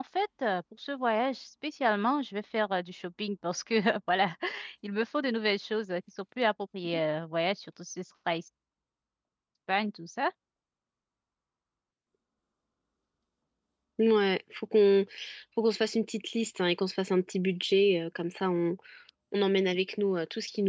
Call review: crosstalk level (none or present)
none